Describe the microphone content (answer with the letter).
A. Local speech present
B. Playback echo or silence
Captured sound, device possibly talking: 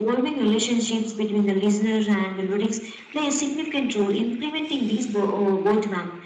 B